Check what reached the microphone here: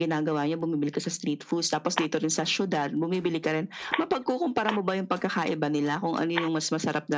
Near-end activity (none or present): none